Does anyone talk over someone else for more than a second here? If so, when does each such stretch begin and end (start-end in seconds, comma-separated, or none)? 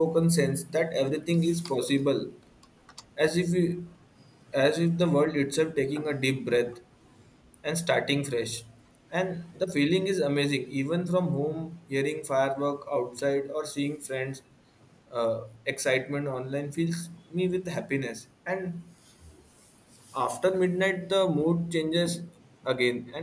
none